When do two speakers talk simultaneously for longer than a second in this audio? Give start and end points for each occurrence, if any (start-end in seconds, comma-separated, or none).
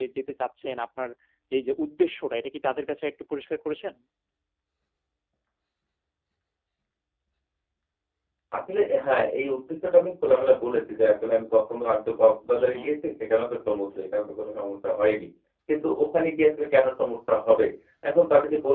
none